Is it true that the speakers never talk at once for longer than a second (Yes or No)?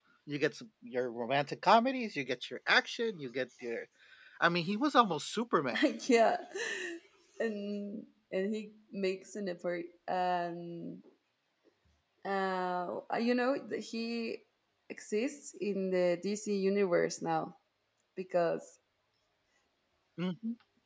Yes